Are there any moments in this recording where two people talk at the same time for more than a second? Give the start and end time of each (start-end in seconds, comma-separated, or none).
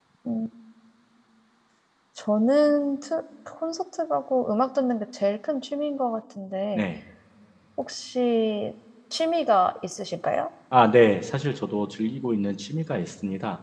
none